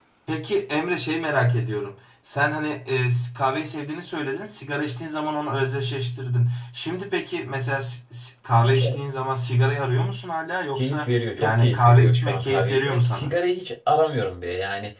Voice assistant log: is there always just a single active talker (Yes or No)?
No